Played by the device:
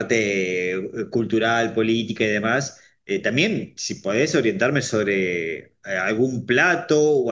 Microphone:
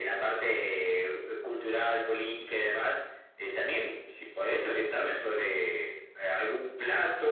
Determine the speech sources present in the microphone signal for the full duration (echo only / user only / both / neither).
echo only